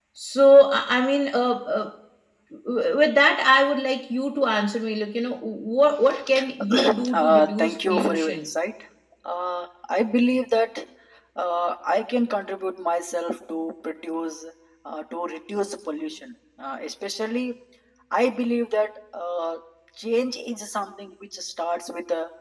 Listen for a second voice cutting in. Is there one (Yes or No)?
Yes